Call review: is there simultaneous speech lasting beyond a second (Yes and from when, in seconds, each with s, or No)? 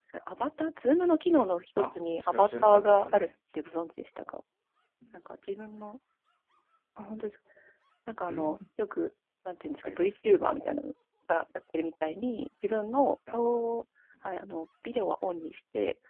Yes, from 1.8 s